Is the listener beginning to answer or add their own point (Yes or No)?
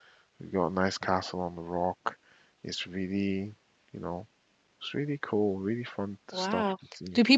Yes